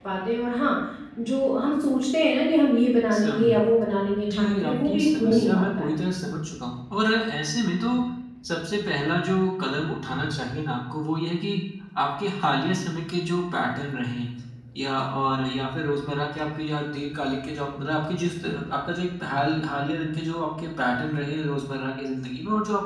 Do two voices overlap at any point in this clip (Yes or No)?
Yes